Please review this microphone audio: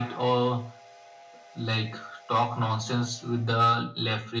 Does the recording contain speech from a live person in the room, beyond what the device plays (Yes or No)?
No